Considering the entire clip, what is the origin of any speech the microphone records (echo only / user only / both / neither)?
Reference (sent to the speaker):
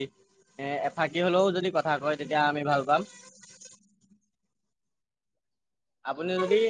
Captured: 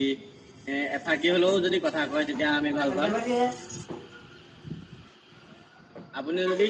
both